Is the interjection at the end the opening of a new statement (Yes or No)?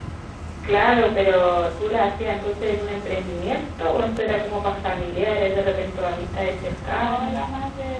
Yes